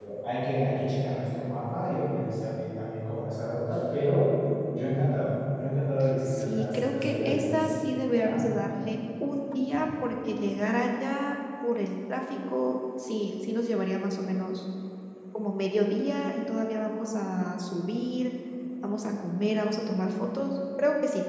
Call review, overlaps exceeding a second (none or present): present